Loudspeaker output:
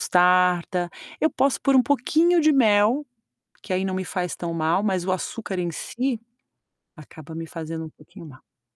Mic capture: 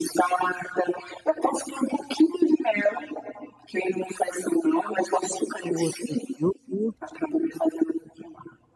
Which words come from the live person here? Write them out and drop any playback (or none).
o outro de iogurte